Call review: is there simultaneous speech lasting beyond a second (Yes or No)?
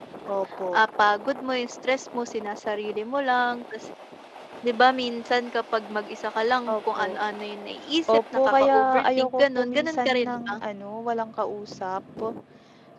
Yes